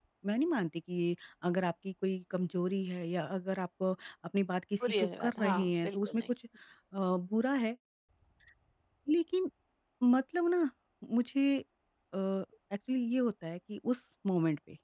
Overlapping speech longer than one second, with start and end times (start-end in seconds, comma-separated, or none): 4.8-6.2